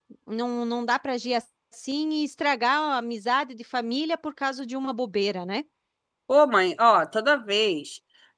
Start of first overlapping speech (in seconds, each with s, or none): none